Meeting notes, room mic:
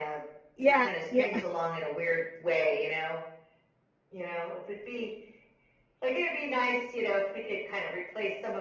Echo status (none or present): present